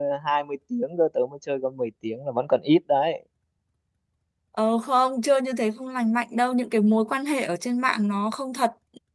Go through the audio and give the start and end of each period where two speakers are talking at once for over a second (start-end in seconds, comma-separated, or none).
none